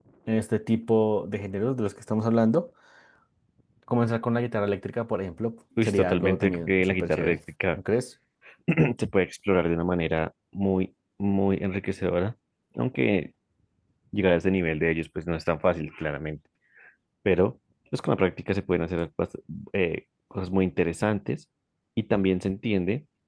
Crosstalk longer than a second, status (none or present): present